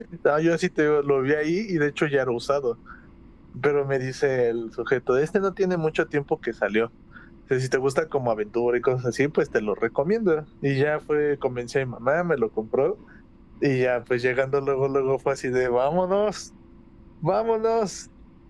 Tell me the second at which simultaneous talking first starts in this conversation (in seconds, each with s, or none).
none